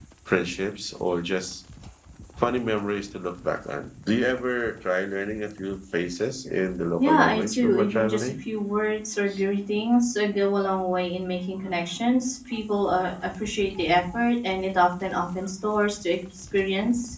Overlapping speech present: Yes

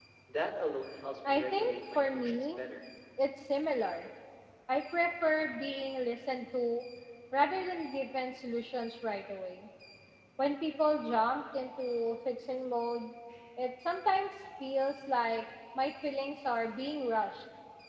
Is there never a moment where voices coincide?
No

